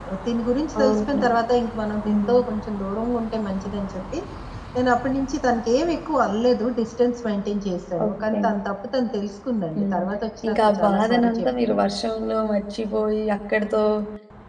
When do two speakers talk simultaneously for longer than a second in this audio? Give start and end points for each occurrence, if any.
10.5-11.8

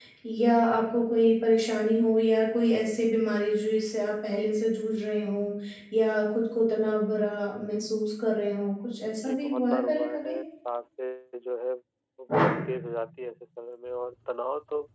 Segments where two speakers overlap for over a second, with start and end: 9.1-10.3

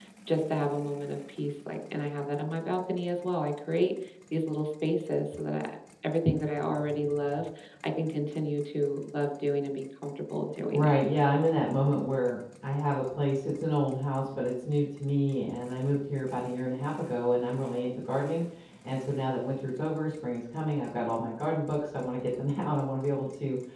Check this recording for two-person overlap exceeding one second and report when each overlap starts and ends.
none

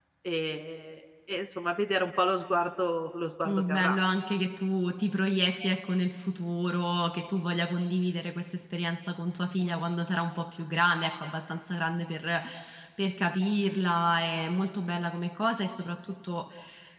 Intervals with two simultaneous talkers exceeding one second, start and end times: none

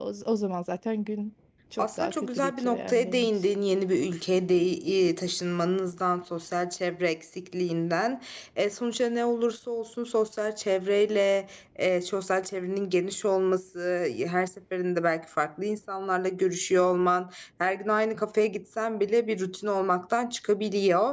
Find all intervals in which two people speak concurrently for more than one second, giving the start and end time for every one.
1.8-3.3

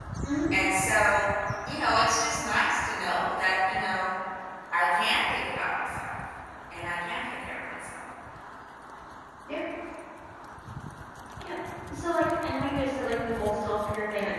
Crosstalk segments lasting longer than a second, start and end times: none

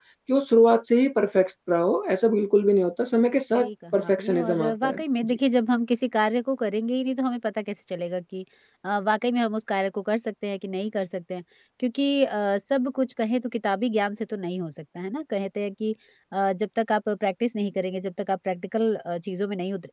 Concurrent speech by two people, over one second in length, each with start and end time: 3.5-5.4

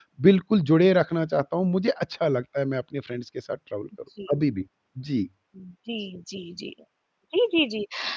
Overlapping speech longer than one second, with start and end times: none

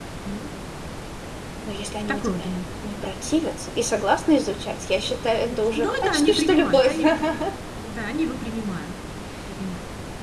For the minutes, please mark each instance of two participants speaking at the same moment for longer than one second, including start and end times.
5.8-7.0

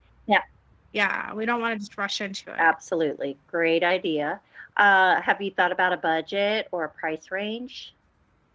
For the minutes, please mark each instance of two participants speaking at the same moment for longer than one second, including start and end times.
none

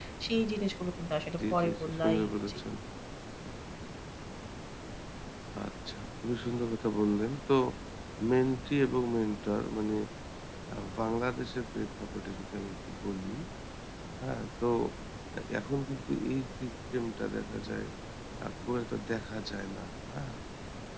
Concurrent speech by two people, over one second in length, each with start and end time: 1.4-2.6

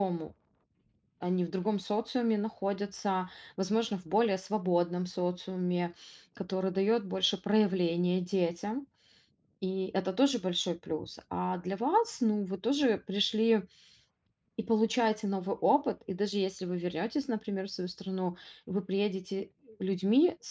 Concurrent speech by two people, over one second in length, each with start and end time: none

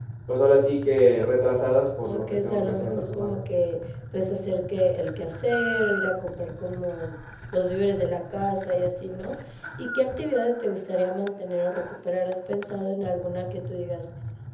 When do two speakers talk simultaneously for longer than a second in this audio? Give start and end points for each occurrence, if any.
2.0-3.3

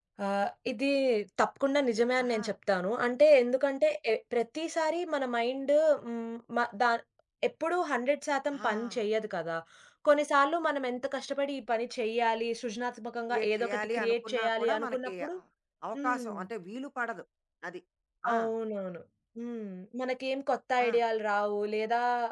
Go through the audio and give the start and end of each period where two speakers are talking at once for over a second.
13.3-15.4

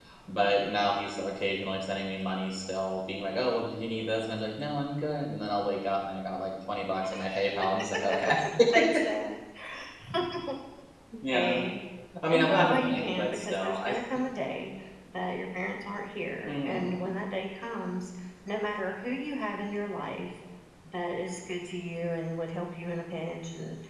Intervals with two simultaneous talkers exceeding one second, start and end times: 12.3-14.2

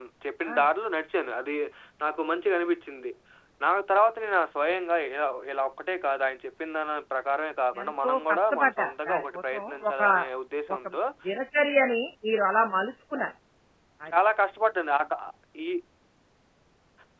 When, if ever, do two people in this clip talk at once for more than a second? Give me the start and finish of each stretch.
7.8-10.0

